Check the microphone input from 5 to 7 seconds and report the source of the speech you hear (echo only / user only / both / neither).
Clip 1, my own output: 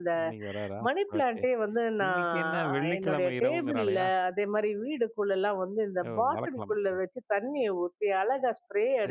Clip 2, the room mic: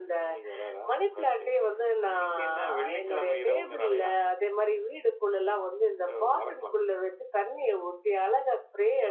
echo only